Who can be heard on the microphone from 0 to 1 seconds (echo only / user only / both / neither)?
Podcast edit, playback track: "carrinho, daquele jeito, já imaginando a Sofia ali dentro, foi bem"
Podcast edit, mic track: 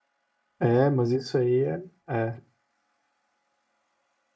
user only